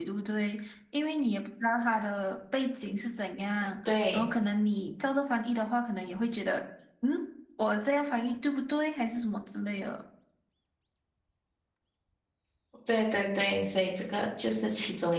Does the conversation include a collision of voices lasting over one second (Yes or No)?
No